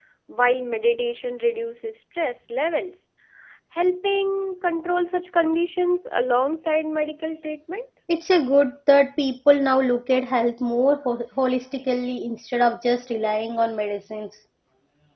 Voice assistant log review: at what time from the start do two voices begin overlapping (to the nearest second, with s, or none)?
none